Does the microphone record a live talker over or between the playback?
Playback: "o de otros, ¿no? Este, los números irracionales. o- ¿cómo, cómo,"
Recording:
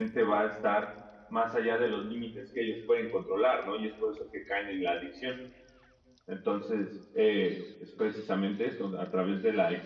Yes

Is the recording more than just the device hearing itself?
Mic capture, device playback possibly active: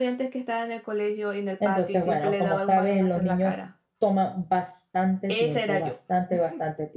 Yes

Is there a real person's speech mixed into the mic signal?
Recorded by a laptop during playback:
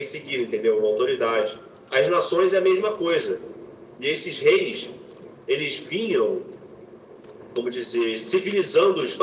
No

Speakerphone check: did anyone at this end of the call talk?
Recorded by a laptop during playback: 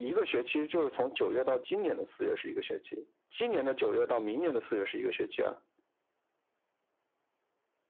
No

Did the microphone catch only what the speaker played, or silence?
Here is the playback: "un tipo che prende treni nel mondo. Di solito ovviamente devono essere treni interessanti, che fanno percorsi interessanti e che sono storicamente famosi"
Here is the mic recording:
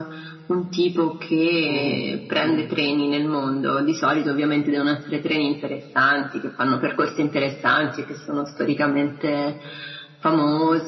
No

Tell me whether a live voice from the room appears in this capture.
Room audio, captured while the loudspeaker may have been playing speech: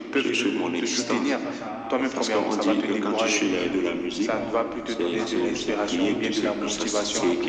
Yes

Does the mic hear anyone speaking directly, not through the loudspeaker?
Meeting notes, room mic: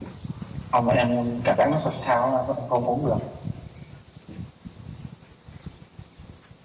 Yes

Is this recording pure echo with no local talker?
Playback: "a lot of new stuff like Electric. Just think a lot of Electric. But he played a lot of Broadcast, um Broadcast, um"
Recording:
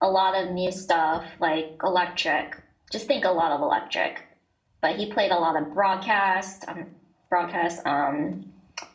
Yes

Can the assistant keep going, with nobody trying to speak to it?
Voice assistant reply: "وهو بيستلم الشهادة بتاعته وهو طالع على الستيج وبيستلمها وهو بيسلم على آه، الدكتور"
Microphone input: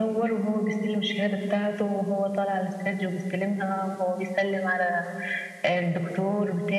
Yes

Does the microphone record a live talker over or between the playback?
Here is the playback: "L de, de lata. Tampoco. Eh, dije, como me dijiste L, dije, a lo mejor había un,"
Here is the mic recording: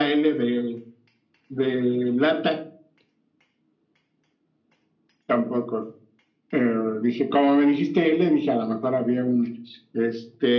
No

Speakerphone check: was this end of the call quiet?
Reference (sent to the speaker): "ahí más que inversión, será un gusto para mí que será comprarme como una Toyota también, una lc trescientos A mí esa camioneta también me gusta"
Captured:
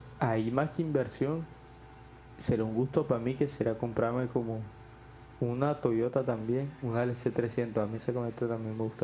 Yes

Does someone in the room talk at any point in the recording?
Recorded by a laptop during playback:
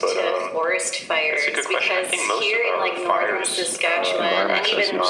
Yes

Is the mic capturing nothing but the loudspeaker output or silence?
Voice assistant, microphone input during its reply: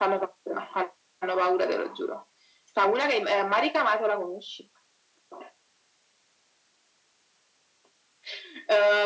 Yes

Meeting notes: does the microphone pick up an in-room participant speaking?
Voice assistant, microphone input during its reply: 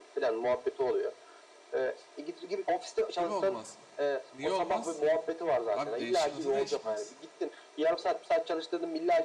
Yes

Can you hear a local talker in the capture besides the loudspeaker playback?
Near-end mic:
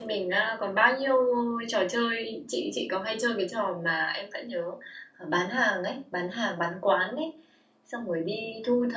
Yes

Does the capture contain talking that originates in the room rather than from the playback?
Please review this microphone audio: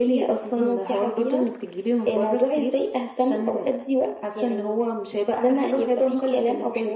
No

